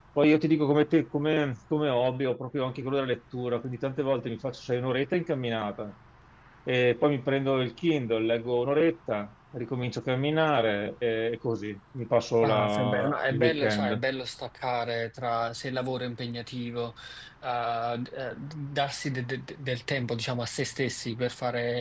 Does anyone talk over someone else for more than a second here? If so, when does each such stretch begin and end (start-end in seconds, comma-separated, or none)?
12.4-14.0